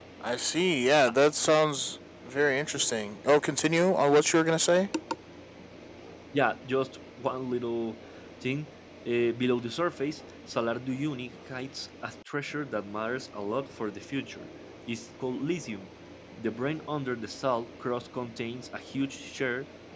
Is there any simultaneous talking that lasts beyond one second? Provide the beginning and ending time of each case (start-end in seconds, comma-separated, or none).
none